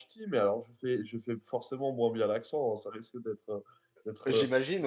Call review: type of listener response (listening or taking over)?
listening